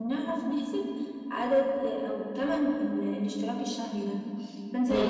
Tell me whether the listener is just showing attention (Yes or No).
Yes